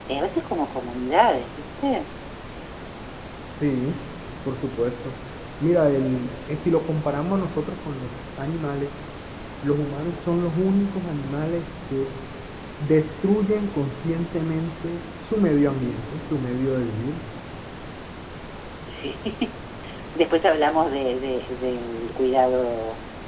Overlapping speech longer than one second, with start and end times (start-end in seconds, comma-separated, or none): none